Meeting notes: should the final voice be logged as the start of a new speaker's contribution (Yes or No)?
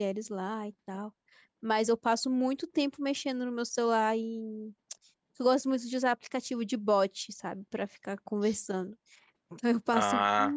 No